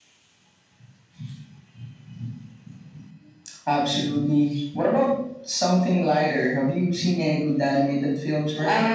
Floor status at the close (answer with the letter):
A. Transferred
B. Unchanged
A